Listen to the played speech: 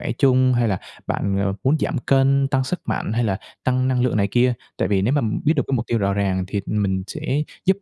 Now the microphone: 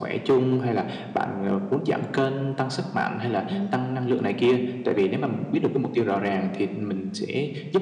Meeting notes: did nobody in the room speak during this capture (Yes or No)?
No